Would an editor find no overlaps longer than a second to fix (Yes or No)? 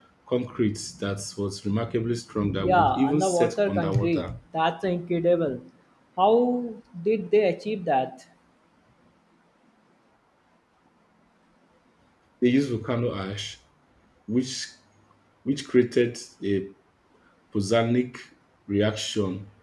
No